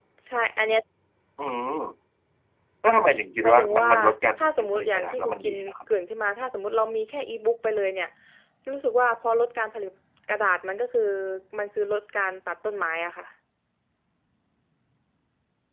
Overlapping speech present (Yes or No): Yes